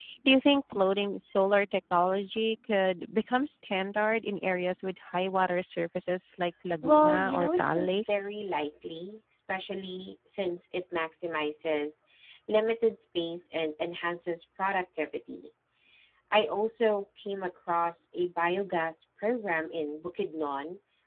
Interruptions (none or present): present